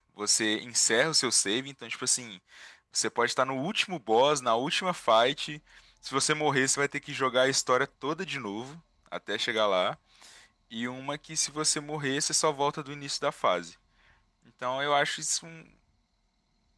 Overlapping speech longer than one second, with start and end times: none

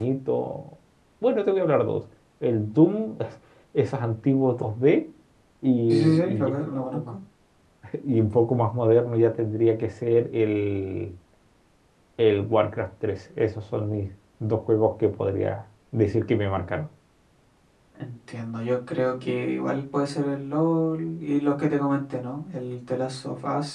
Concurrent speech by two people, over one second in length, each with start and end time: 5.9-7.2

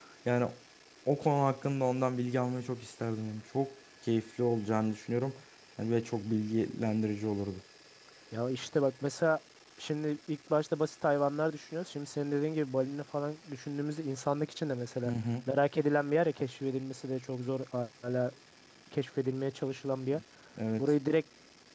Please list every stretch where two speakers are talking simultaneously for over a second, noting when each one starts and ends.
none

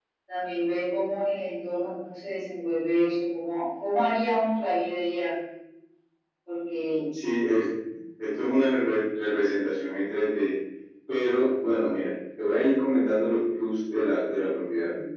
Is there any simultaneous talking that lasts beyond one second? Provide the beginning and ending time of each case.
none

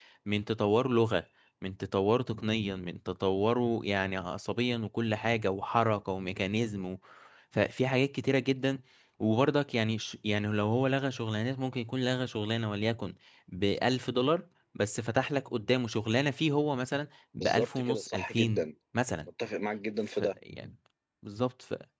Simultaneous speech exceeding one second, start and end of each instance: 17.4-18.7

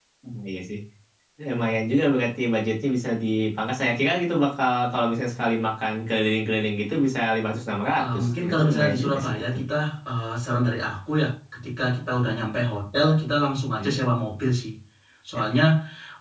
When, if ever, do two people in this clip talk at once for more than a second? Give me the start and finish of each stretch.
8.0-9.6

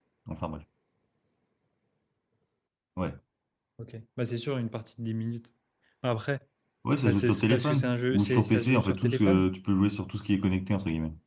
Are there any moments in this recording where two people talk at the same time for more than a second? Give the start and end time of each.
7.0-9.5

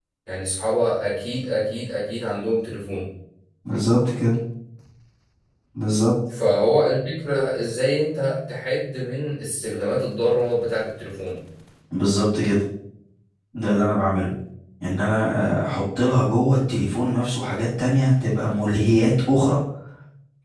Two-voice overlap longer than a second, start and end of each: none

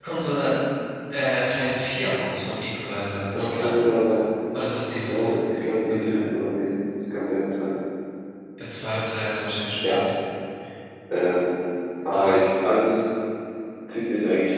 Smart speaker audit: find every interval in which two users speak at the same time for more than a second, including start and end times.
none

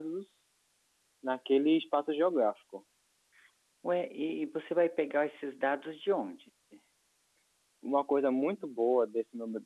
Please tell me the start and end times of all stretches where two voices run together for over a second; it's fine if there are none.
none

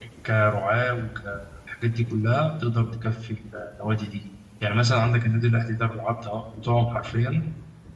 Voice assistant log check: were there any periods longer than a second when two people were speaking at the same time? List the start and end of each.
none

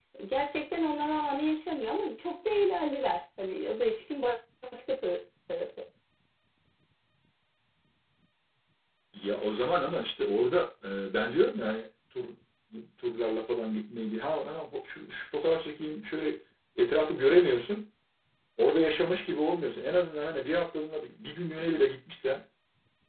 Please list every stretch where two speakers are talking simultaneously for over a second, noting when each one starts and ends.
none

